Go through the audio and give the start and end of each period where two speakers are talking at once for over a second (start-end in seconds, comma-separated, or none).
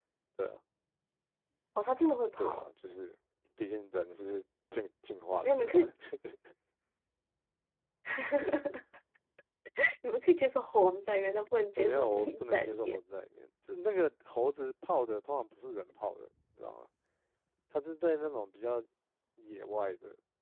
11.8-13.0